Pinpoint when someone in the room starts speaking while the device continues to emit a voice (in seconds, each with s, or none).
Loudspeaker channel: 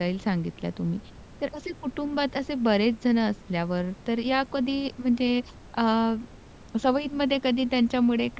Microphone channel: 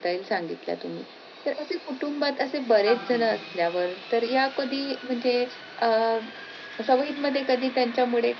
2.9 s